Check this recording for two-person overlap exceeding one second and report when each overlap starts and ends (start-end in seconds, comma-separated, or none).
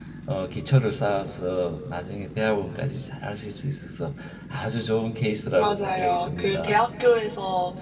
5.6-6.8